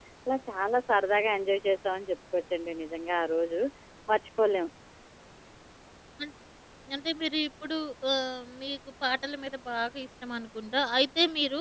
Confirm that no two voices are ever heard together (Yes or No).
Yes